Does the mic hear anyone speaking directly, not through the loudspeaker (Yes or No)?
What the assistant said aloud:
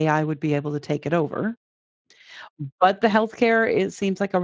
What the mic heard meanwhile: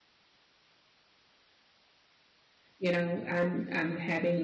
Yes